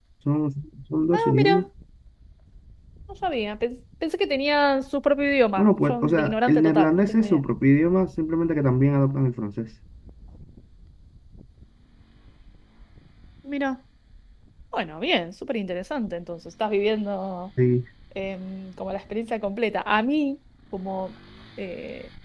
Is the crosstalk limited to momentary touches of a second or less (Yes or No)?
No